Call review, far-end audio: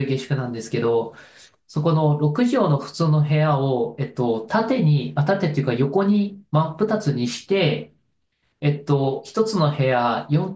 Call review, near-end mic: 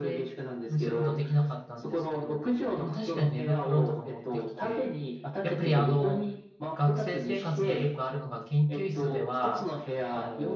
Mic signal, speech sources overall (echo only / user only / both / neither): both